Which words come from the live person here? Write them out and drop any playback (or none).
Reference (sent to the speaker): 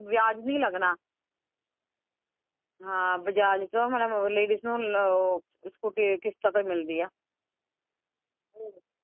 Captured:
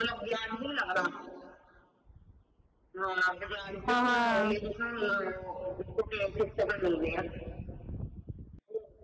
ਹਾਂ-ਹਾਂ